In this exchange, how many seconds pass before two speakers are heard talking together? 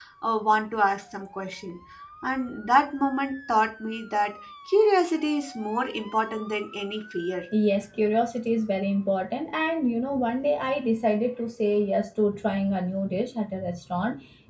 none

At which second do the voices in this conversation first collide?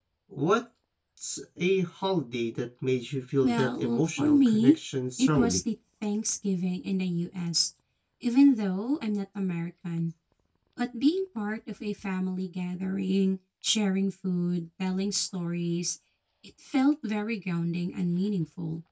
3.4 s

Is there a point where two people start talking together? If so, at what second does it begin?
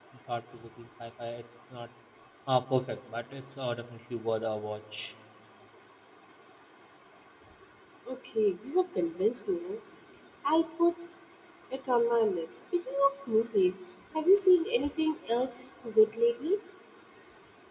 none

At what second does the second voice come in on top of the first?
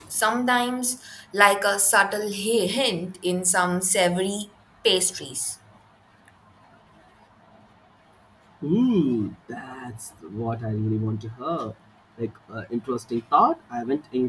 none

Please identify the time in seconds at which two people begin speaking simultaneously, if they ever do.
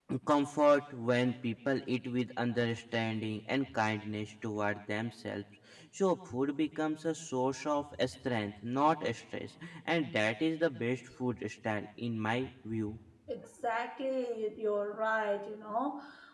none

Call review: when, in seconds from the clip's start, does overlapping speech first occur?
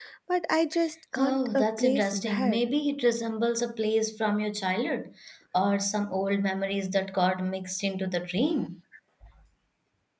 1.1 s

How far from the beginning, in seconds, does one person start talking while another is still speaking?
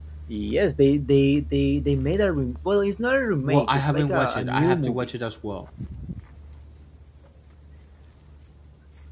3.4 s

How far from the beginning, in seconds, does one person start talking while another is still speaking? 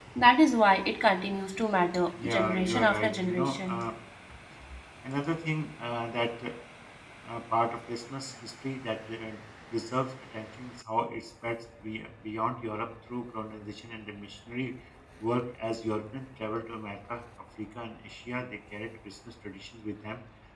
2.1 s

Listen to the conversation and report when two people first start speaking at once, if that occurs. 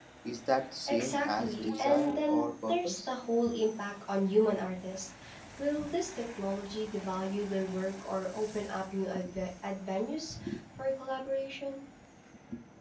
0.9 s

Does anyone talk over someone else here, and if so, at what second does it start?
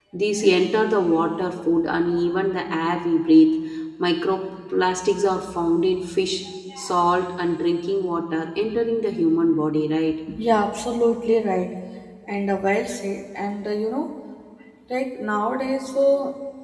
none

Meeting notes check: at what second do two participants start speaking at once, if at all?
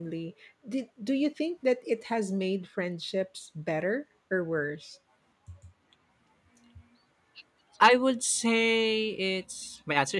none

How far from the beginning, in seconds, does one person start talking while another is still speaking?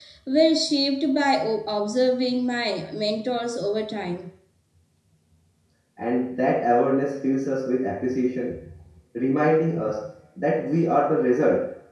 none

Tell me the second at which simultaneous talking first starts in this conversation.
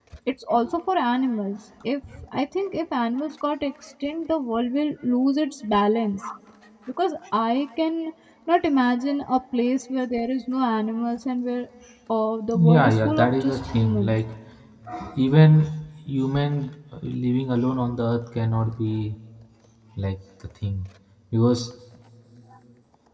12.7 s

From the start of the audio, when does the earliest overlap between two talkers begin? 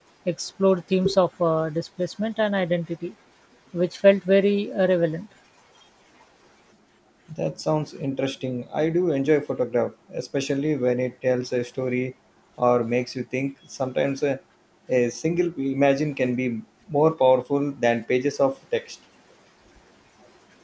none

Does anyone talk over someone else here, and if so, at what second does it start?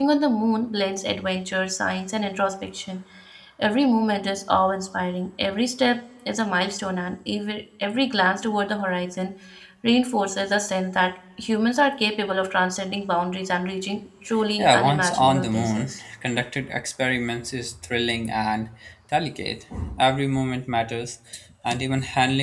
14.6 s

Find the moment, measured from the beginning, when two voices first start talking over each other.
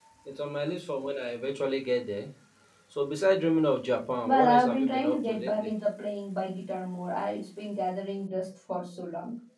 4.2 s

